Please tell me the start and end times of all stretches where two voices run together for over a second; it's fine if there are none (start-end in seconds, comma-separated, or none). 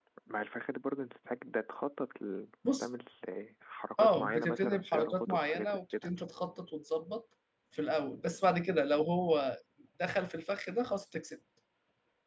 4.0-6.2